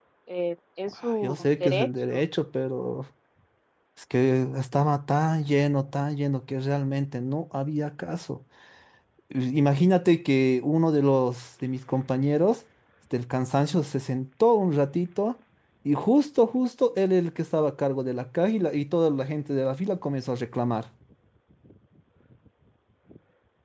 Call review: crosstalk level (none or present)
present